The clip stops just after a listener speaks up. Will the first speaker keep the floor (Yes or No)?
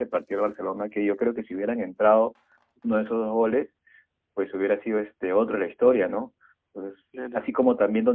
Yes